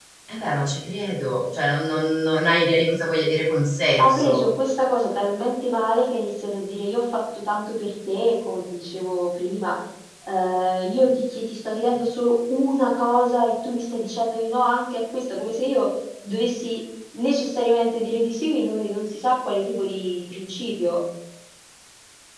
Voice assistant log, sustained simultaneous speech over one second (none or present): none